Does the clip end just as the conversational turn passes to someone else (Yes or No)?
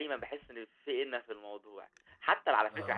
No